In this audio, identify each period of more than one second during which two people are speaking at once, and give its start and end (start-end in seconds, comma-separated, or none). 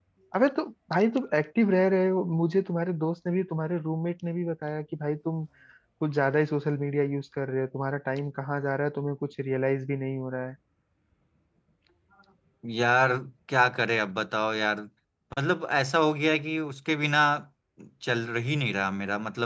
none